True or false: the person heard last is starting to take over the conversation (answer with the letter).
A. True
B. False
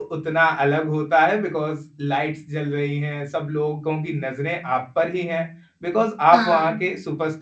B